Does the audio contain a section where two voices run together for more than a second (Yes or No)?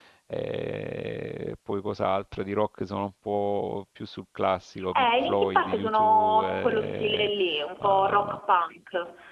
Yes